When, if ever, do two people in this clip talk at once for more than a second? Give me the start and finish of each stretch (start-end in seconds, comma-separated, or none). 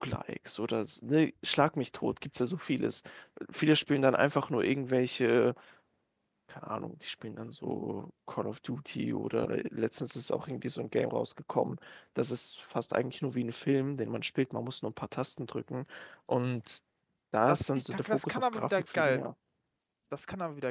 17.5-19.3